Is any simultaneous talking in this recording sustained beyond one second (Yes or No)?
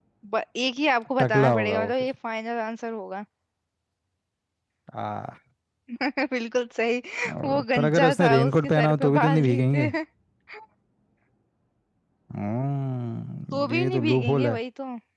Yes